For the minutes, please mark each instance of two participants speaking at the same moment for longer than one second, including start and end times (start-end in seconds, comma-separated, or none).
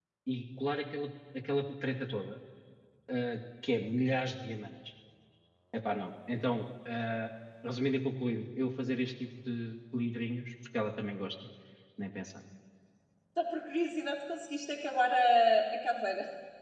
none